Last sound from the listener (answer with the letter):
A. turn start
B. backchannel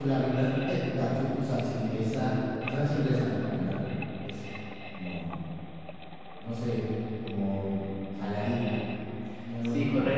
A